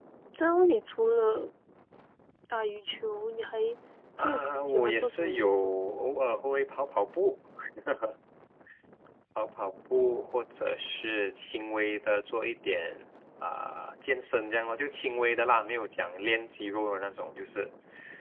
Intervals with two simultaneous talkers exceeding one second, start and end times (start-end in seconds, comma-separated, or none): 4.2-5.7